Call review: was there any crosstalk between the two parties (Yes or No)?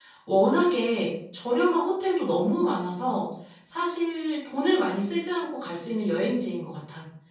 No